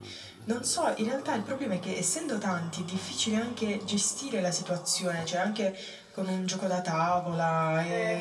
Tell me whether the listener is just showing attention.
No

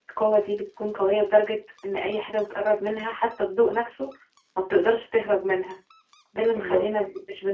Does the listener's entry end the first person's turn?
No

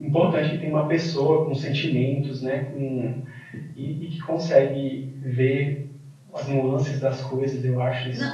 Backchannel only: No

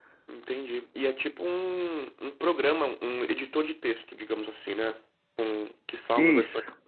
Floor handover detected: No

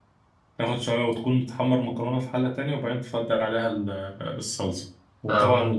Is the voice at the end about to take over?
No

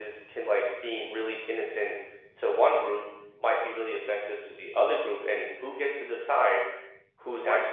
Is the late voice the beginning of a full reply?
No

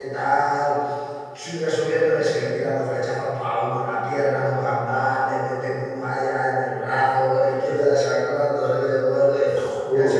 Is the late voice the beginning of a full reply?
No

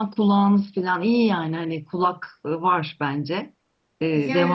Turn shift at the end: Yes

